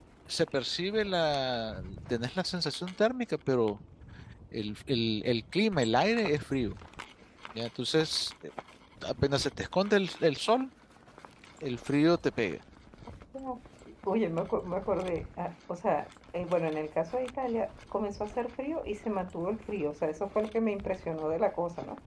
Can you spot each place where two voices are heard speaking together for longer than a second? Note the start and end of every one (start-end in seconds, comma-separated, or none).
none